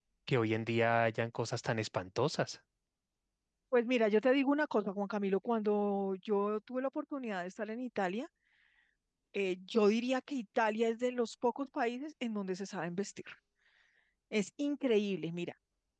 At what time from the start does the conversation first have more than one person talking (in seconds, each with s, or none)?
none